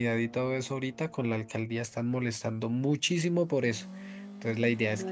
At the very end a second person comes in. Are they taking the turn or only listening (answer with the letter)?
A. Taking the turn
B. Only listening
B